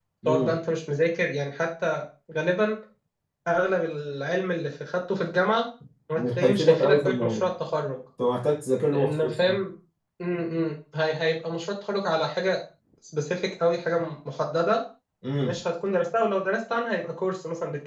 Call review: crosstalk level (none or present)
present